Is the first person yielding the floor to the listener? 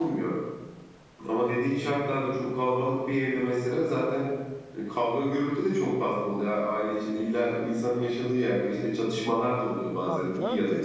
Yes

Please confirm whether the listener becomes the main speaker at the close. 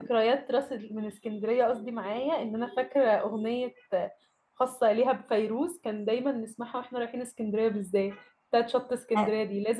No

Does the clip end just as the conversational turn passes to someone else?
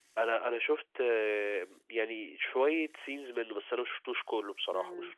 Yes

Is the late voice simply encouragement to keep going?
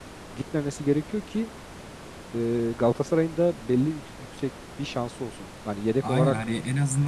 No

